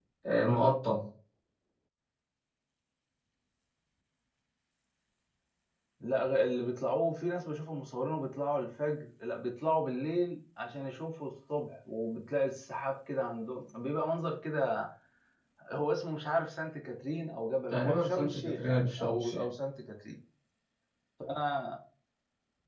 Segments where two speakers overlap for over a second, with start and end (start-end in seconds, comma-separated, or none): 17.7-19.5